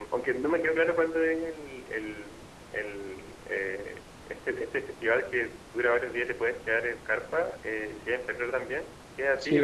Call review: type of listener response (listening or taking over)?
taking over